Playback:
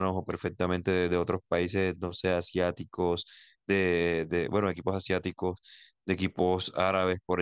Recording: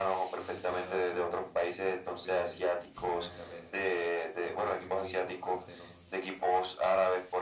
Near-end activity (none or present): present